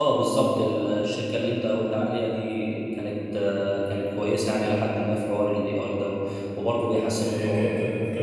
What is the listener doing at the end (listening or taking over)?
taking over